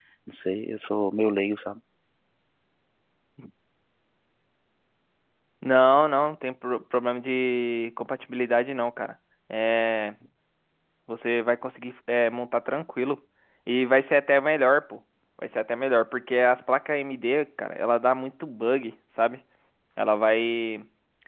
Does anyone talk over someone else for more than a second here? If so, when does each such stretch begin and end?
none

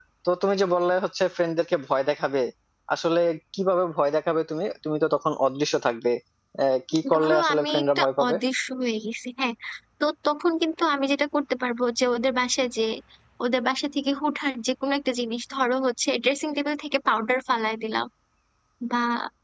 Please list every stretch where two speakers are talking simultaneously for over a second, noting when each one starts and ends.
7.2-8.3

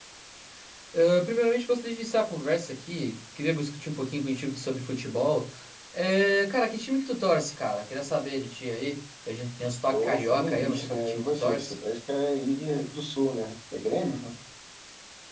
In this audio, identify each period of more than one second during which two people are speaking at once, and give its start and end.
9.9-11.7

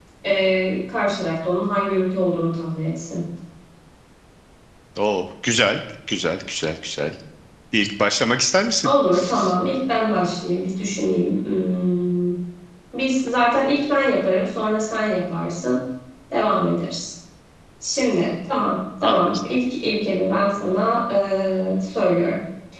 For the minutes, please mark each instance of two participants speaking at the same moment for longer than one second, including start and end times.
none

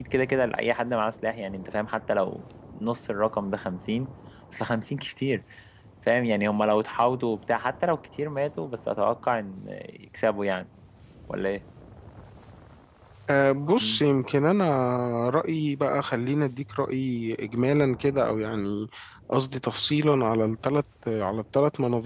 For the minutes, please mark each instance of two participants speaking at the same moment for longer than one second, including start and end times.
none

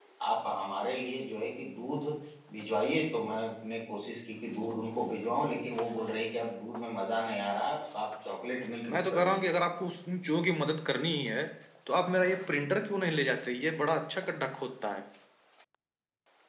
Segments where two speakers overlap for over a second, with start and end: none

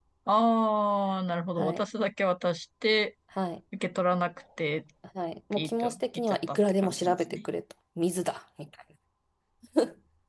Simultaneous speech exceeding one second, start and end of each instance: 5.5-7.4

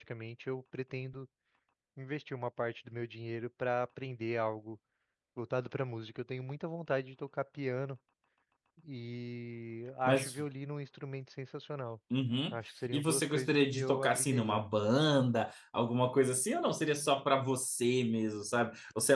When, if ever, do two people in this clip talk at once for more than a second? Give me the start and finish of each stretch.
12.9-14.6

